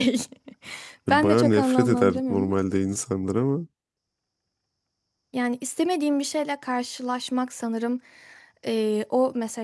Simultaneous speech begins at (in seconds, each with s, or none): 1.1 s